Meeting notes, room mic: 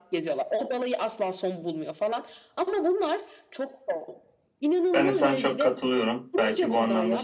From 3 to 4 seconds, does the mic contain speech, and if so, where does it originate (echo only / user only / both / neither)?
echo only